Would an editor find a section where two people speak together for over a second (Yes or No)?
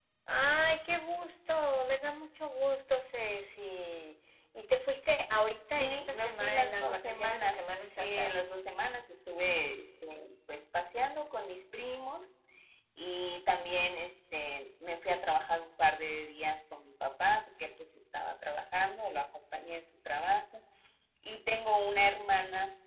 Yes